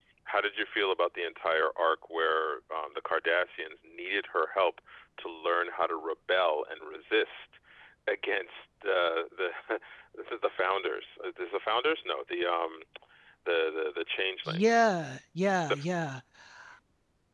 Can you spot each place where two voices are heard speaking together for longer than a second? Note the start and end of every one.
none

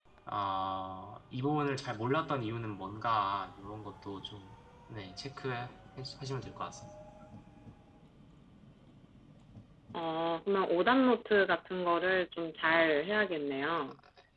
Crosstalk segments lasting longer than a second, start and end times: none

